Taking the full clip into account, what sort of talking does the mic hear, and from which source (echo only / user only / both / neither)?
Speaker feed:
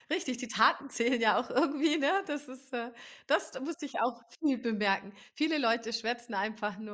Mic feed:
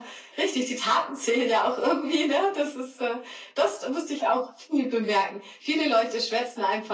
echo only